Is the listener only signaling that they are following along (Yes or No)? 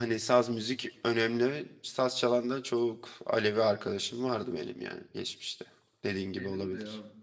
No